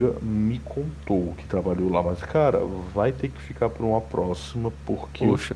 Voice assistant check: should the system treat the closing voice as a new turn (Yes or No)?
No